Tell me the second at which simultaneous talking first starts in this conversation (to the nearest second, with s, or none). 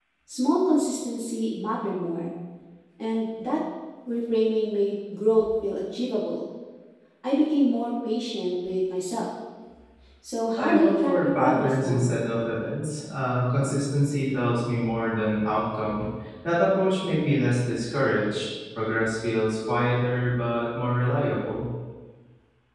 11 s